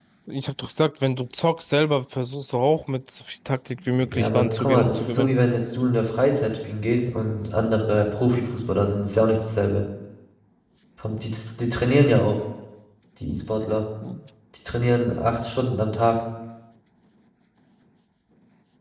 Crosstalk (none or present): present